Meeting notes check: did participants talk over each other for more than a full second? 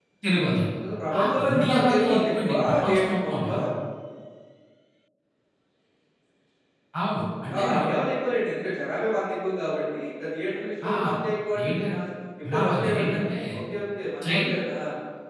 Yes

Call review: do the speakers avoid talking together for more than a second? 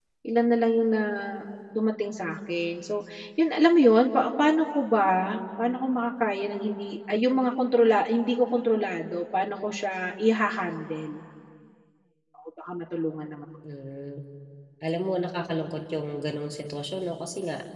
Yes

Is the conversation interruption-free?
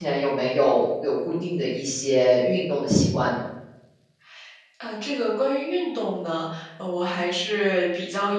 Yes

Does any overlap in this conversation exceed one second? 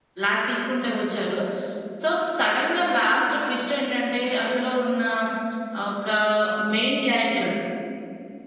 No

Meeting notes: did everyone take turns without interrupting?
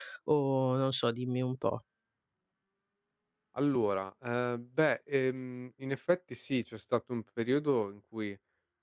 Yes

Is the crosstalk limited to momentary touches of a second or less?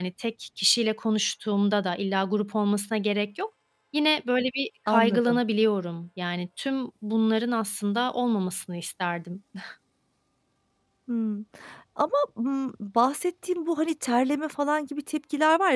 Yes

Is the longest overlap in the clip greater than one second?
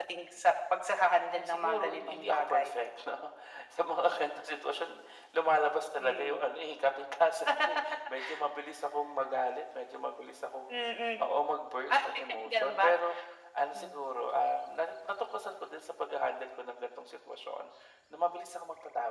Yes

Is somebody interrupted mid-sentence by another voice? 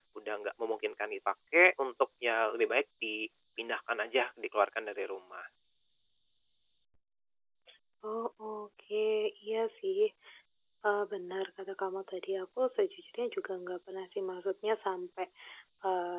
No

